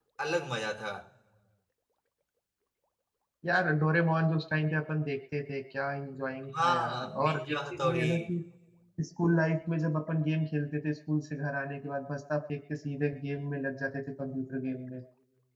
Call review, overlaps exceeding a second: present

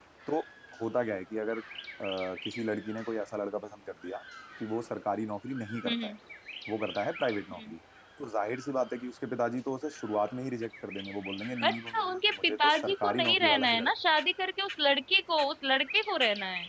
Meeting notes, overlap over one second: present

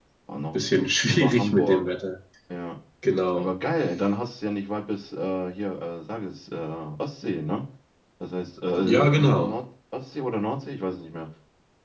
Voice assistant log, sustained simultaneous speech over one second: present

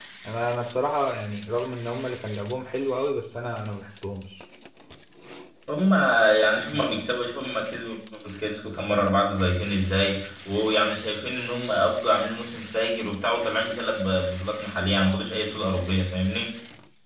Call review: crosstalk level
none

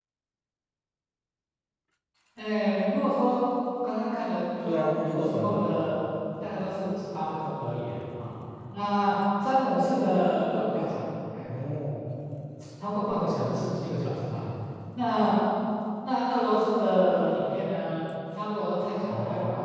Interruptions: present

